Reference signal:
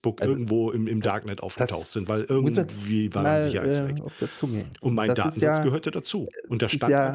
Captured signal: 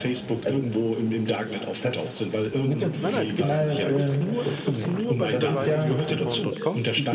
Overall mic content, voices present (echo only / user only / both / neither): both